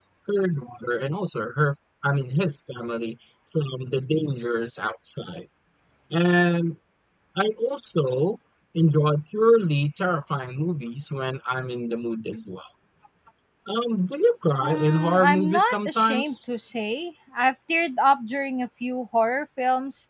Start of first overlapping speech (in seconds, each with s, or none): 14.6 s